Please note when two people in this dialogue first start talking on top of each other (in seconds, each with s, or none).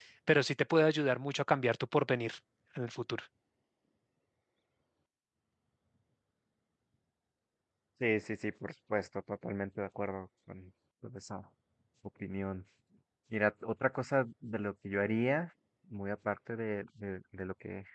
none